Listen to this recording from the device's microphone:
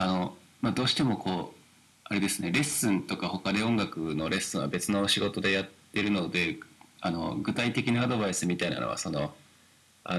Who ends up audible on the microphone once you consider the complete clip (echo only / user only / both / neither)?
echo only